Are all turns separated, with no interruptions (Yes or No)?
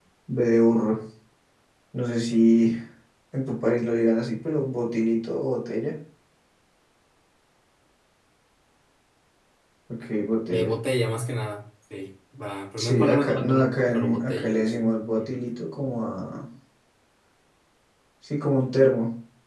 No